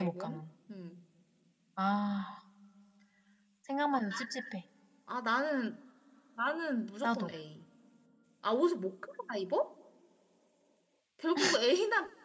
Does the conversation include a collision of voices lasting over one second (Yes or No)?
No